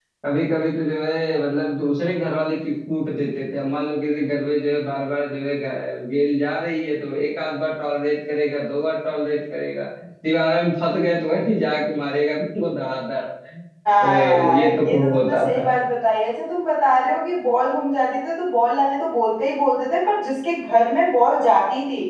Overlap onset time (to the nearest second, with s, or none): 14 s